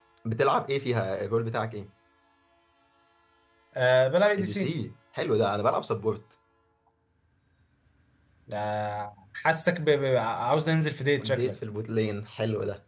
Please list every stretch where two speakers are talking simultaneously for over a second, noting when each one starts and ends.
none

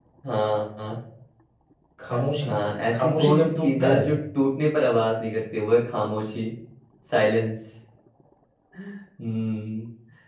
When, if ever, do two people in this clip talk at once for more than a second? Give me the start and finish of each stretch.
2.9-4.2

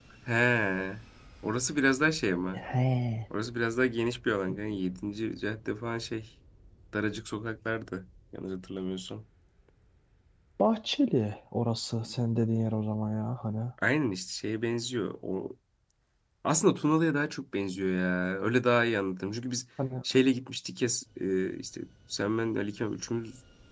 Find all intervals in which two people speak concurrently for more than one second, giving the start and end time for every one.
none

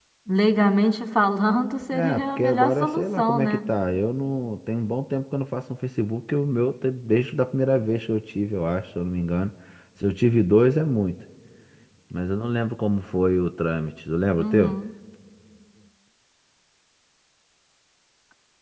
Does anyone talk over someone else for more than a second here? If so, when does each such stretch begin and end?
1.9-3.6

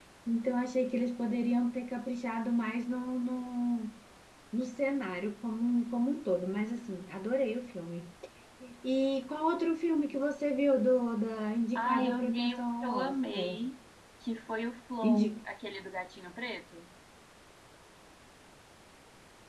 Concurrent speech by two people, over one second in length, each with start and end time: 11.8-13.6

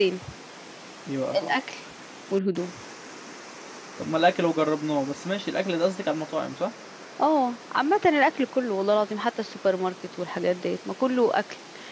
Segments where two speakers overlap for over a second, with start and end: none

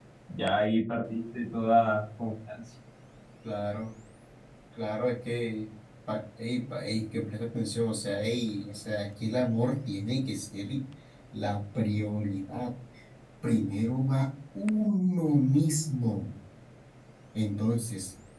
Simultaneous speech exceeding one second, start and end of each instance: none

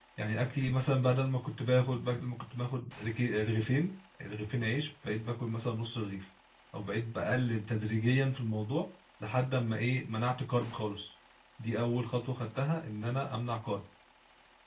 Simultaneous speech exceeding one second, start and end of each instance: none

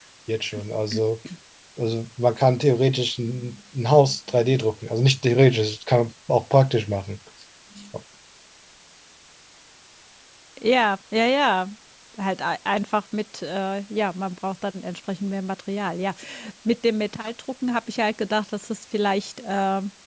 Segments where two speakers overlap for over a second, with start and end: none

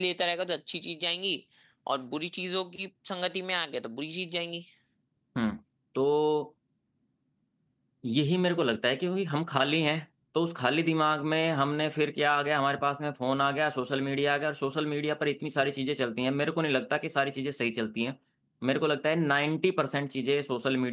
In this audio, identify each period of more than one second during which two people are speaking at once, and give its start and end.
none

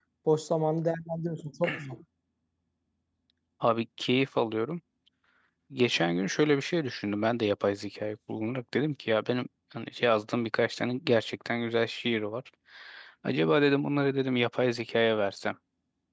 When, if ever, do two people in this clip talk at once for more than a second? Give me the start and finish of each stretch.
none

